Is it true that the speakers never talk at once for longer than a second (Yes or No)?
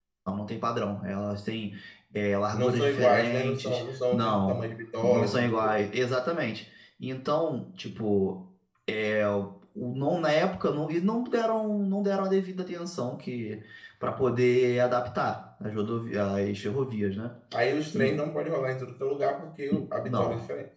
No